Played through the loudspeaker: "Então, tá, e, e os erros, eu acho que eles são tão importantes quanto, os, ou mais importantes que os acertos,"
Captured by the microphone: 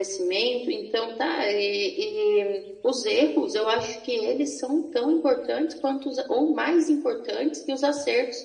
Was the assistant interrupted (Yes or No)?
No